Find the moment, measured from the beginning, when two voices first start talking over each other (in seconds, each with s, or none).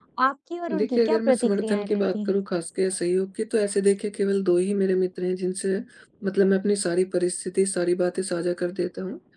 0.8 s